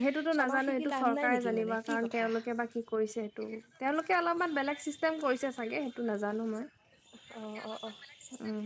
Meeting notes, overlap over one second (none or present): present